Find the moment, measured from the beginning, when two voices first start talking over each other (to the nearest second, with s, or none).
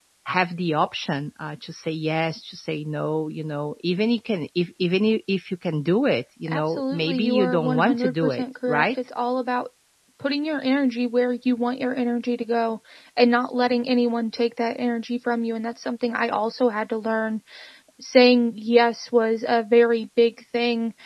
6 s